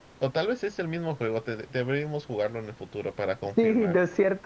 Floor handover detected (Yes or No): Yes